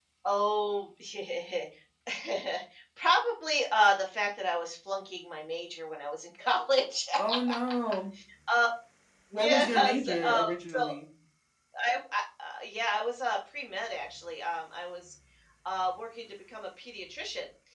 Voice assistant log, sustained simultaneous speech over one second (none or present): present